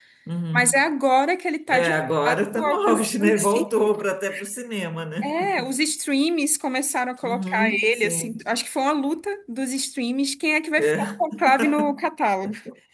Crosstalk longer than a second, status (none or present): present